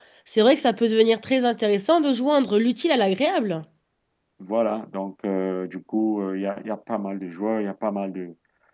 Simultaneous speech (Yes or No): No